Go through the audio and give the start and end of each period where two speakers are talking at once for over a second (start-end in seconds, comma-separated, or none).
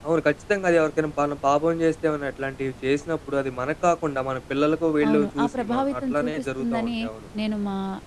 5.0-6.9